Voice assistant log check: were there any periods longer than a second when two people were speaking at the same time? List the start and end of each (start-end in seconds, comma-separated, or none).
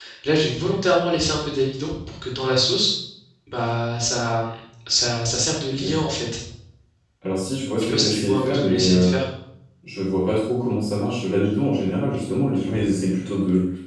7.8-9.1